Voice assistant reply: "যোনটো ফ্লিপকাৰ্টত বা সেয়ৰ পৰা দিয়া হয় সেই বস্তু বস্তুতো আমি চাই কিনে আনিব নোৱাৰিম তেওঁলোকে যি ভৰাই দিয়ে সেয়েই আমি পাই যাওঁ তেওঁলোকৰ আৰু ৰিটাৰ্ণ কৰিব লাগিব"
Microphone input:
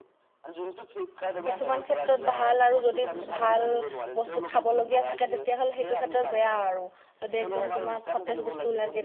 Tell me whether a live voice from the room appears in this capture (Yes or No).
Yes